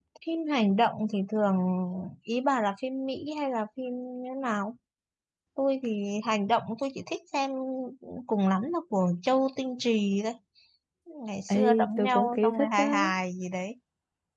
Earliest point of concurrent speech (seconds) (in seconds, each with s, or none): 11.5 s